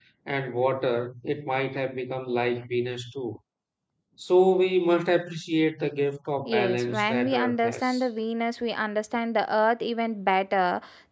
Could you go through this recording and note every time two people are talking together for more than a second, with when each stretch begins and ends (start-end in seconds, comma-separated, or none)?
6.5-8.1